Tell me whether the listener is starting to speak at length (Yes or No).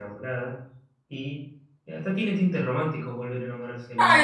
Yes